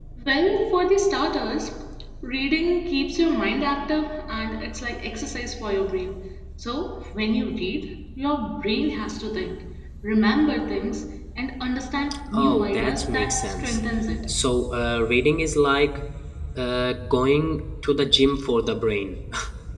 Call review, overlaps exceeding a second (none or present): present